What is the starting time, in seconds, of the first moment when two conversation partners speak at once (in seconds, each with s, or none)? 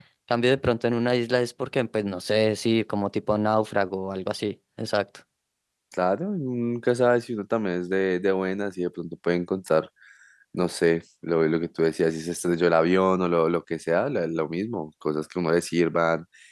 none